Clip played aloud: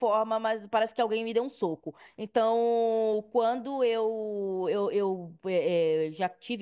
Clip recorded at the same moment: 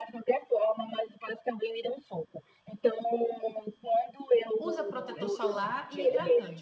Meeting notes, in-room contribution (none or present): present